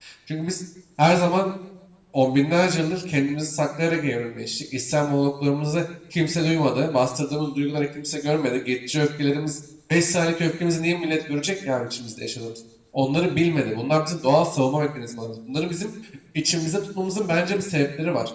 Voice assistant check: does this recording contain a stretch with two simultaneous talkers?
No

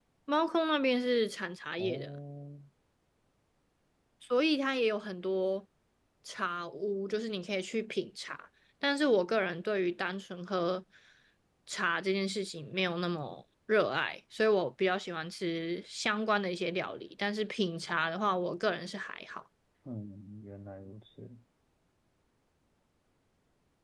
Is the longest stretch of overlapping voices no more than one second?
Yes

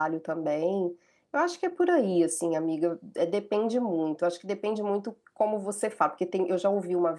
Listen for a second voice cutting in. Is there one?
No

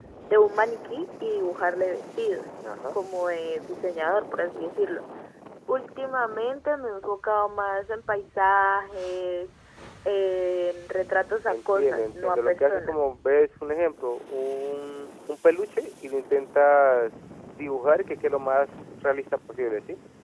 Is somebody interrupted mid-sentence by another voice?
Yes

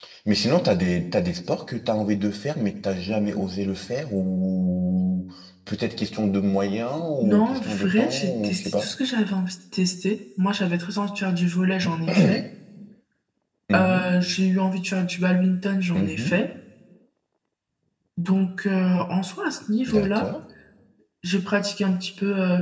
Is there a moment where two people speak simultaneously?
Yes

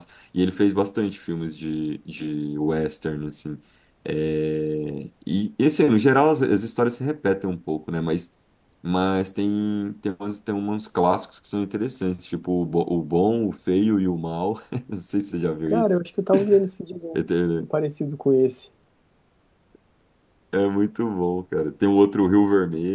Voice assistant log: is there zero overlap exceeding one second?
Yes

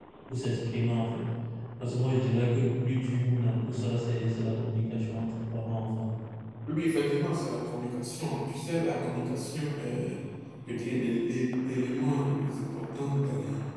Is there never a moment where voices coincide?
Yes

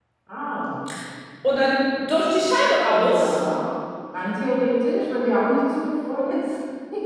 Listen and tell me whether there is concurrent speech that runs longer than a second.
No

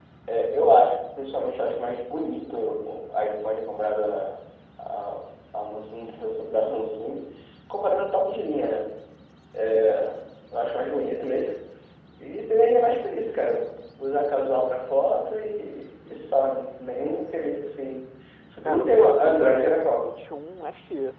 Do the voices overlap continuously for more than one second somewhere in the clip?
Yes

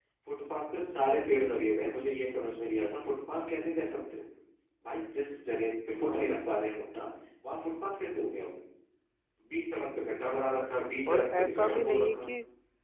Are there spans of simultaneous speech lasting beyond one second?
Yes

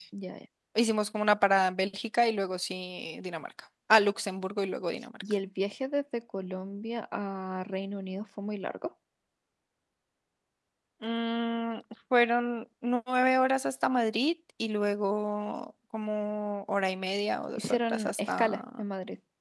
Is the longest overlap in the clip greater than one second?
Yes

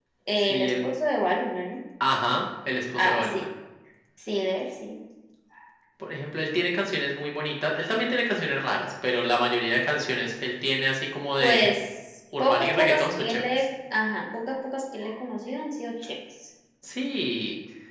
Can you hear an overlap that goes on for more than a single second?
Yes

